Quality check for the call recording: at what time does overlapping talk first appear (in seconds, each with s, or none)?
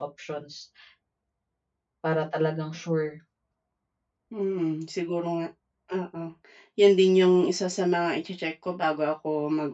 none